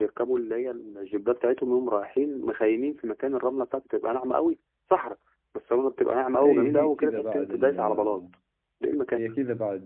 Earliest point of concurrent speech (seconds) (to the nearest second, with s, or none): 6 s